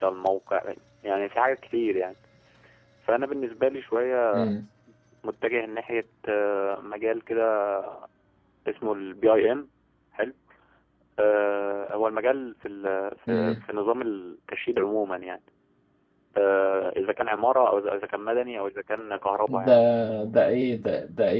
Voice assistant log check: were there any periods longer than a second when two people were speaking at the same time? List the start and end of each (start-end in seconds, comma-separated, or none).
none